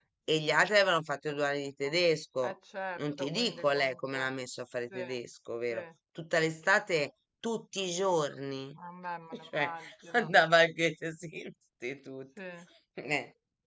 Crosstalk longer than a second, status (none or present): present